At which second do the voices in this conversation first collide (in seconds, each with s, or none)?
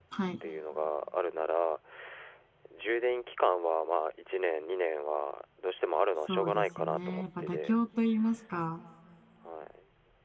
6.2 s